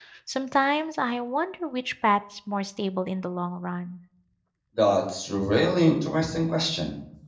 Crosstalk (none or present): none